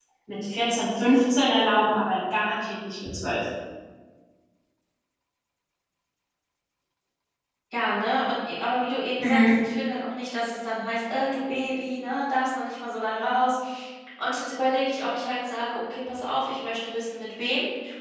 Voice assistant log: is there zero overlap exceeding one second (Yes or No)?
Yes